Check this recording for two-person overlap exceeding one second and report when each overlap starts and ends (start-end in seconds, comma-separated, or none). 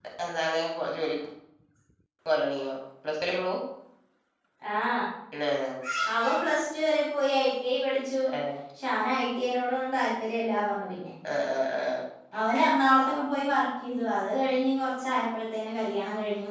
none